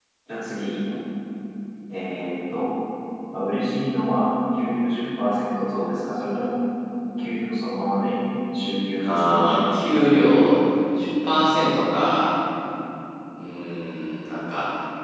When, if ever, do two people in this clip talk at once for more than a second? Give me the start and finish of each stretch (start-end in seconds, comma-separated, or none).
9.0-10.4